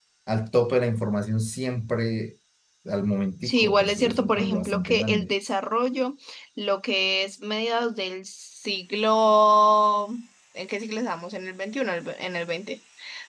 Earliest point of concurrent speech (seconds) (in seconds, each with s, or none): 3.4 s